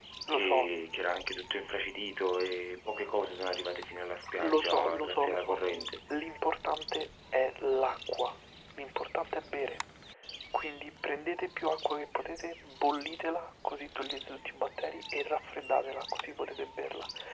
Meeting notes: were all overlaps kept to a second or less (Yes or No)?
No